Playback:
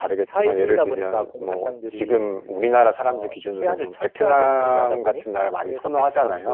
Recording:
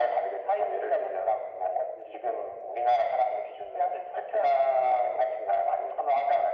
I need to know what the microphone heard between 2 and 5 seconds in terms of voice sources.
echo only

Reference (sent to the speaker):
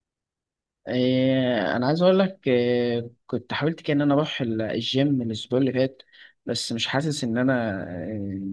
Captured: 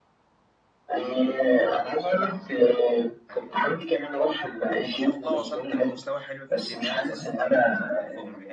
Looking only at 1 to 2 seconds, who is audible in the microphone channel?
both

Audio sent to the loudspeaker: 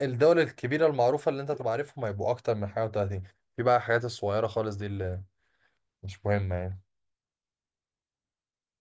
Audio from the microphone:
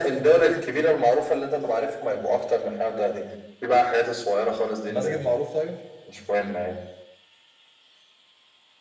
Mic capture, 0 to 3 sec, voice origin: echo only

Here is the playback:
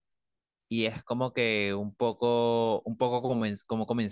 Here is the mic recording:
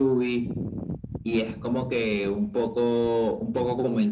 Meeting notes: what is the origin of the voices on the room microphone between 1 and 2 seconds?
echo only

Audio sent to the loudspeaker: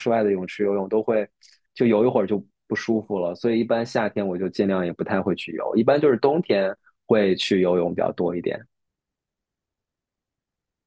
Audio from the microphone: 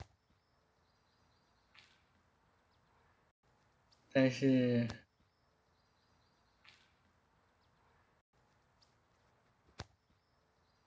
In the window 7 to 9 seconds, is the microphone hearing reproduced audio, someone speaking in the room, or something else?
neither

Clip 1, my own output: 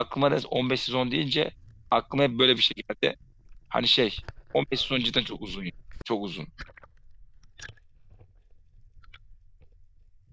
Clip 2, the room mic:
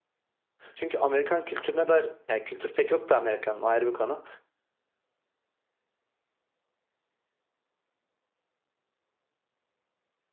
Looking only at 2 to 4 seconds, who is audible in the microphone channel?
user only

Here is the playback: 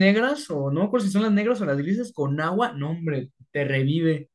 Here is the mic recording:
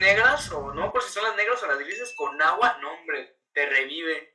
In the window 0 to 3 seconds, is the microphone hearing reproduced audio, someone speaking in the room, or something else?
echo only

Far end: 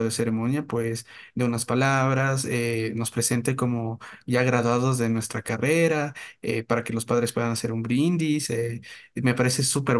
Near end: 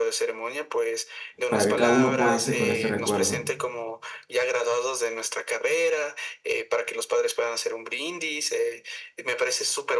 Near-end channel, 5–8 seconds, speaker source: echo only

